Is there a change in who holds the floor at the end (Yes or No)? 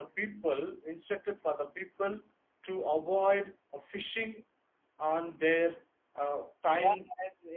Yes